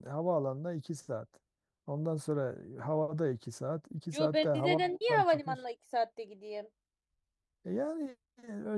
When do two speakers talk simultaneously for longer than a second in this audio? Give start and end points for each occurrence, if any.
4.1-5.6

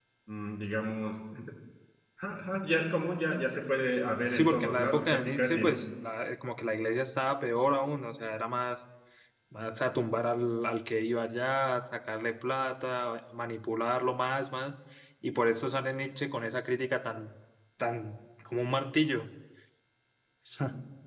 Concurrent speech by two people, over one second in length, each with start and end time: 4.3-5.8

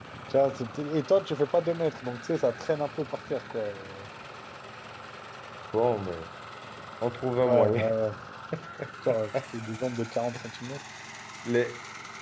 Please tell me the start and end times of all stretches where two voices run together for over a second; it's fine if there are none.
none

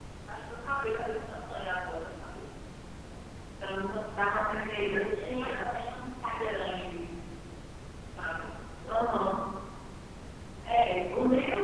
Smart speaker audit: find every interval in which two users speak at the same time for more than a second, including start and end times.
4.3-5.5

